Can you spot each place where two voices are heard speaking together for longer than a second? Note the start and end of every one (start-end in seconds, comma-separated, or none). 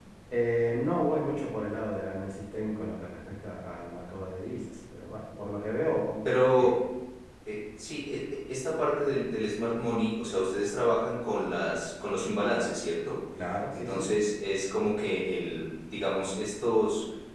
none